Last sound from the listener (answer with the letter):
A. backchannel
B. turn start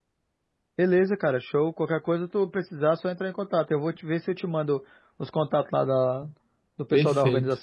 B